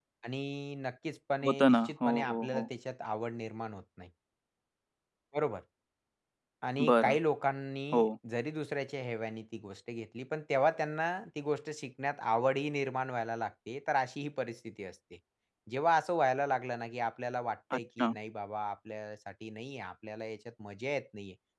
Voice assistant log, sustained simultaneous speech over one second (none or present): present